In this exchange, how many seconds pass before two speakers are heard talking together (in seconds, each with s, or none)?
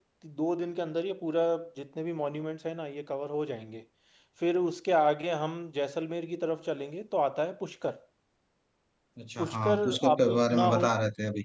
9.4 s